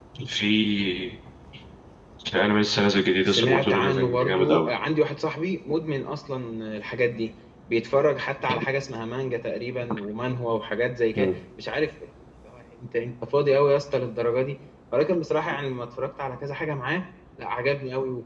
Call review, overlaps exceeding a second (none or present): present